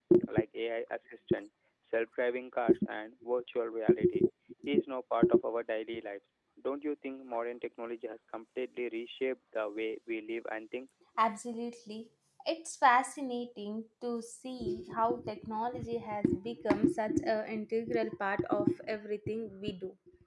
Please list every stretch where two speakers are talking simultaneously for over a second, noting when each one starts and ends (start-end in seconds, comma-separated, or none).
none